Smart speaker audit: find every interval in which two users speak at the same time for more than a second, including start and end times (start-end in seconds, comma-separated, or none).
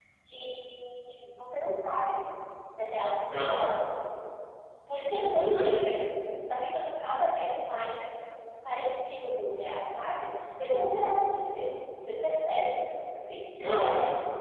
none